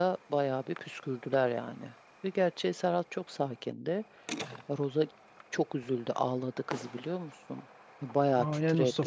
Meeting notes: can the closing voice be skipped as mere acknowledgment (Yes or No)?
No